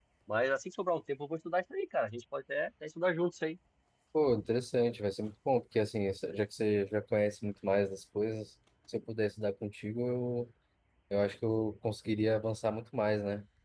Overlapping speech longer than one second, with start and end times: none

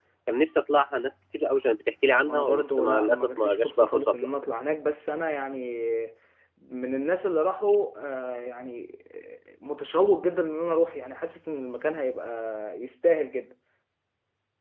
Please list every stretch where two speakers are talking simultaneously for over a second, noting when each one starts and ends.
2.2-4.3

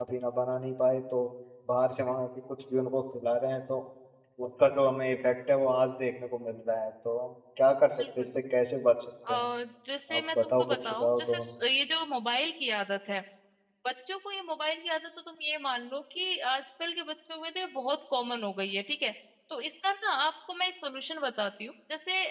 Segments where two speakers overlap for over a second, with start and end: 10.2-11.4

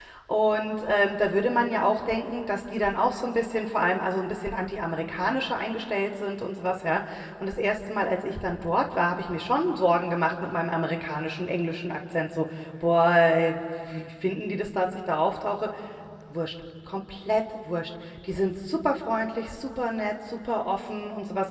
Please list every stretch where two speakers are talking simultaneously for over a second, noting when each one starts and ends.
none

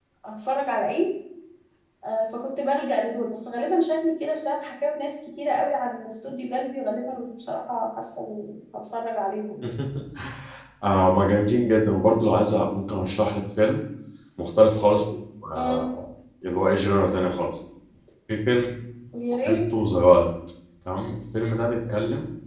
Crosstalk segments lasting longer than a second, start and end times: none

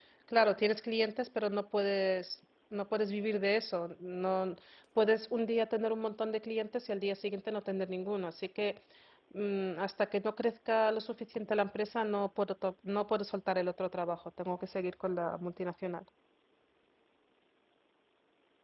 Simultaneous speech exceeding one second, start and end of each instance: none

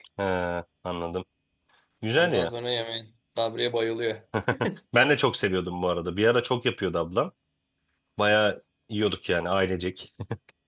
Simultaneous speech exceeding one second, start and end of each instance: none

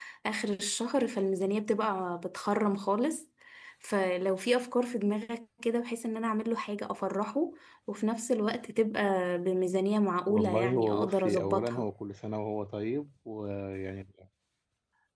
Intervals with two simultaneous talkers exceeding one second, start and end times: 10.3-11.8

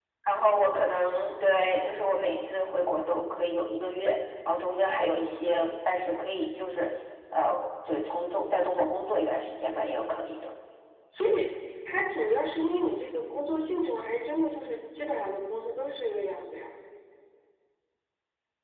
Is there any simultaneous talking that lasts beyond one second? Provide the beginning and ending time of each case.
none

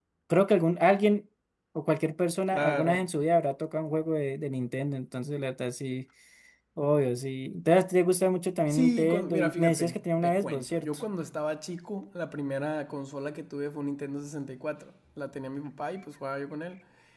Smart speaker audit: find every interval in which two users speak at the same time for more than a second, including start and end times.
8.7-11.0

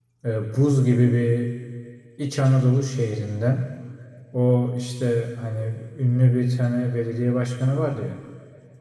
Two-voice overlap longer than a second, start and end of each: none

